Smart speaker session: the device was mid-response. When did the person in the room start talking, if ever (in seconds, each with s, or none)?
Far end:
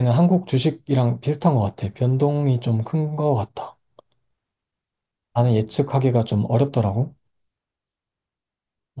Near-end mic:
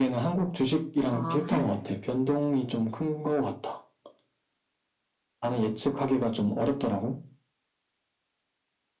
1.1 s